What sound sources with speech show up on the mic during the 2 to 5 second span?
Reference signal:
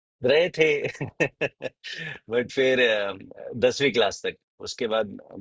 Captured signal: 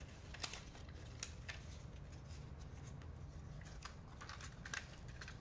neither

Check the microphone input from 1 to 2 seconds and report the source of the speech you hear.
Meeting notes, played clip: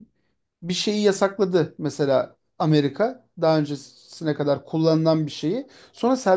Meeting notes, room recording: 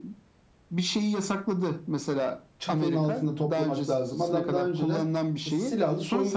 echo only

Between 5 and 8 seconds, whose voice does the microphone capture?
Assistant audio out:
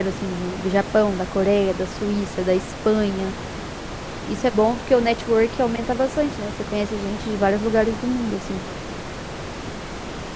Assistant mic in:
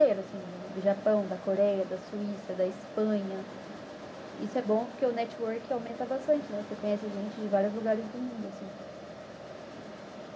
echo only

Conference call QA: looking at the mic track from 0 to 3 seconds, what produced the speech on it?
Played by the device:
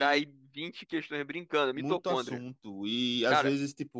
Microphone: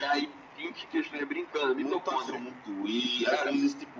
echo only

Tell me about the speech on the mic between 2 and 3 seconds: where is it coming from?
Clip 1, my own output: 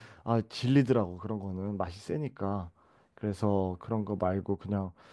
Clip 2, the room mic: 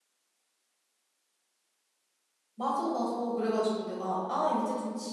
user only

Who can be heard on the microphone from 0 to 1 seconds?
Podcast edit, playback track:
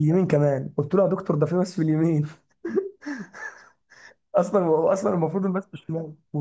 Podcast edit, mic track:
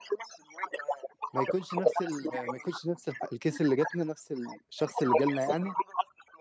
echo only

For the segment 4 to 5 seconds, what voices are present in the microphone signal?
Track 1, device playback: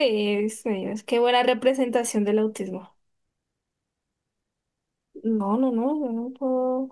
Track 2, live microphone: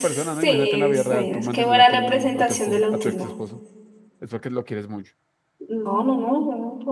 user only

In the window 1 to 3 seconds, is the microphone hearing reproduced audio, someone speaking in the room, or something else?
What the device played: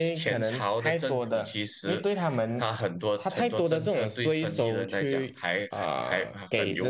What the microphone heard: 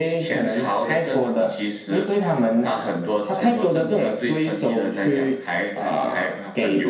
echo only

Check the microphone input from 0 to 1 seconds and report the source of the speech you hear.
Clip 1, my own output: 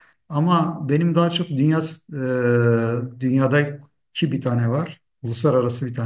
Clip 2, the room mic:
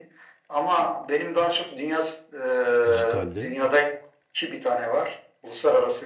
echo only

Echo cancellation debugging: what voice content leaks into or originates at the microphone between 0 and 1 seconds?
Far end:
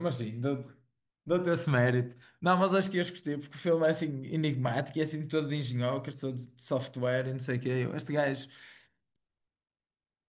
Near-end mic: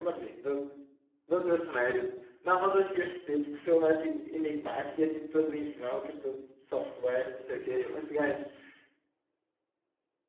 echo only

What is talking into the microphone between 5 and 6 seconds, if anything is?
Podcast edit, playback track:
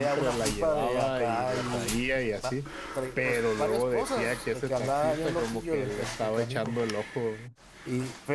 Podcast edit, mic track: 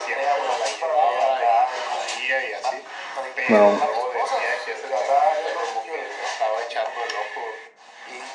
echo only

